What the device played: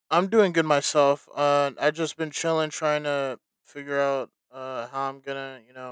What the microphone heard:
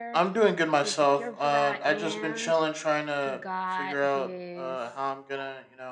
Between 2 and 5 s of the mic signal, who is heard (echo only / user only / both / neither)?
both